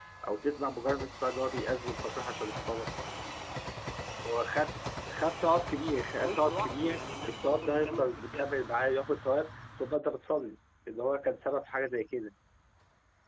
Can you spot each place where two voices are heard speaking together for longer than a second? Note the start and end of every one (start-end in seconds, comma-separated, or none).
6.2-8.5